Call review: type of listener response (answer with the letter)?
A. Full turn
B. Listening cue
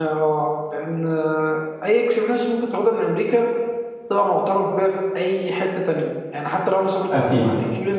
B